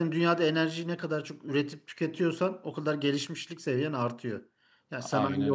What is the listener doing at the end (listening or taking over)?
listening